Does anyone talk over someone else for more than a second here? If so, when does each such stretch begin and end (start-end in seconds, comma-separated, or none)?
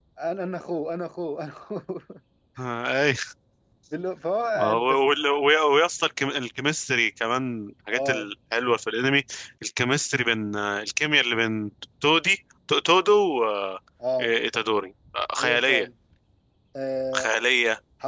none